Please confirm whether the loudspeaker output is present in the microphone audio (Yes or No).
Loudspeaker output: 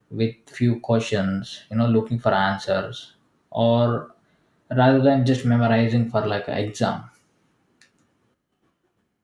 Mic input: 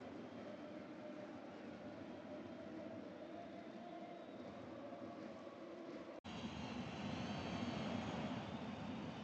No